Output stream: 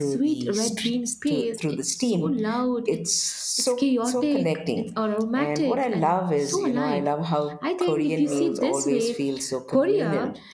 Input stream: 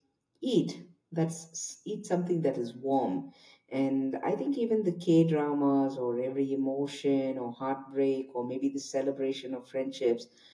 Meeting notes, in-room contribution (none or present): present